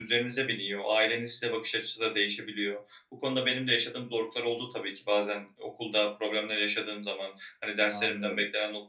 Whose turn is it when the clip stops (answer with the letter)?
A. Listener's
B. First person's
B